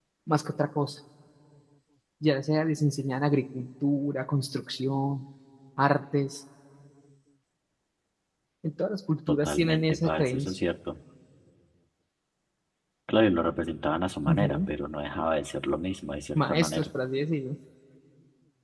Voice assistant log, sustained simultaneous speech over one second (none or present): present